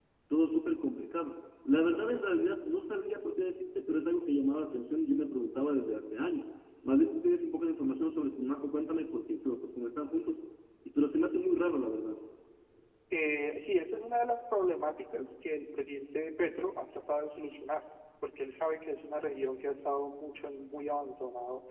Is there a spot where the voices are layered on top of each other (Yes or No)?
No